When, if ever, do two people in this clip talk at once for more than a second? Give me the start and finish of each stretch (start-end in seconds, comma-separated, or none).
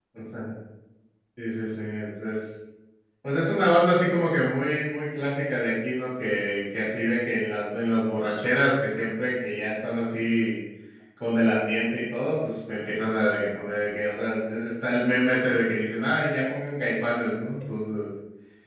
none